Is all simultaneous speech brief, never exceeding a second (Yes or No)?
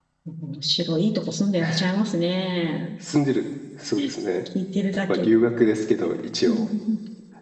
Yes